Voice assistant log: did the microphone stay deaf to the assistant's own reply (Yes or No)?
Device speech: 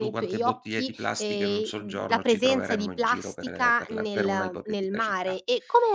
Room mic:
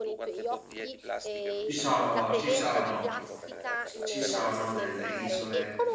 No